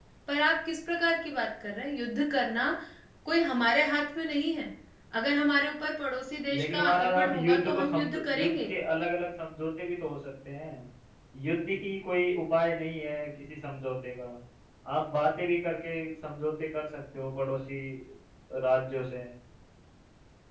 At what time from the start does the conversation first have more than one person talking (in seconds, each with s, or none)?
6.5 s